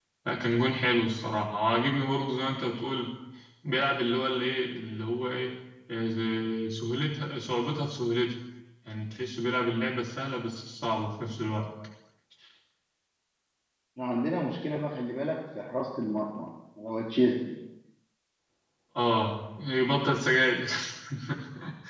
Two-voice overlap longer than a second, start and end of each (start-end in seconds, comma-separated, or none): none